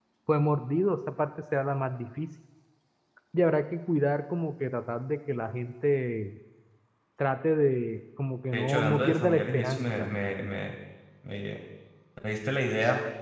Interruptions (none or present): present